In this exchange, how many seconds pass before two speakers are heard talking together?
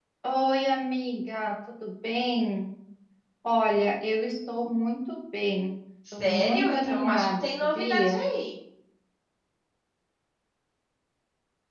6.0 s

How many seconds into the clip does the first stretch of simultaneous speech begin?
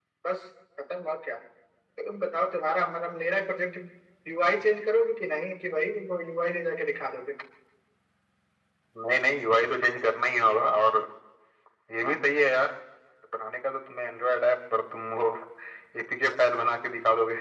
none

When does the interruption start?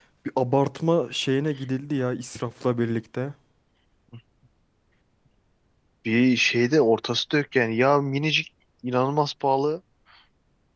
none

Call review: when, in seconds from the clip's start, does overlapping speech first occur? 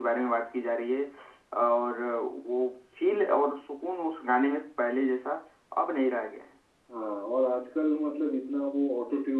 none

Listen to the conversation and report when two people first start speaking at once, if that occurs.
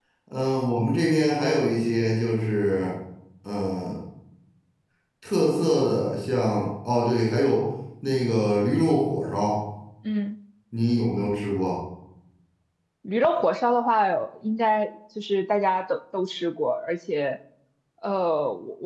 none

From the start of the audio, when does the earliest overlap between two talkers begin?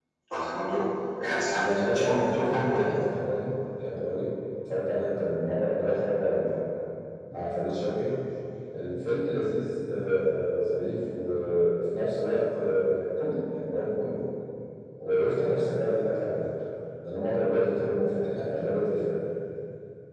1.6 s

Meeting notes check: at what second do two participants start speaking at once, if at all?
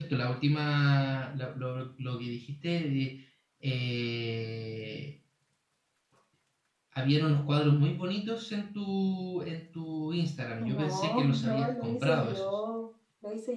10.6 s

